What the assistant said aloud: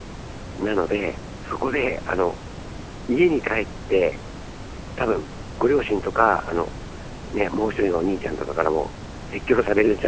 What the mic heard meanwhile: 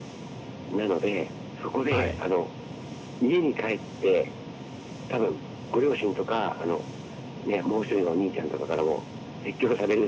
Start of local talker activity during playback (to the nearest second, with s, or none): 2 s